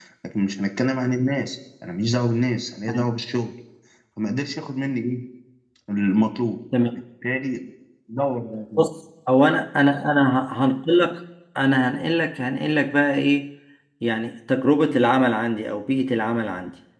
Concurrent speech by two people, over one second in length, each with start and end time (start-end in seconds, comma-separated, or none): none